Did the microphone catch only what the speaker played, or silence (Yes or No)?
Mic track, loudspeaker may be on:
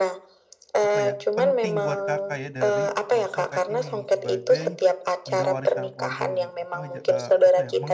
No